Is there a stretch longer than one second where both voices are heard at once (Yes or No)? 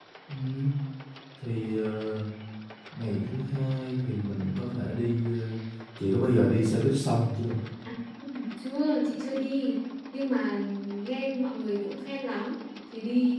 No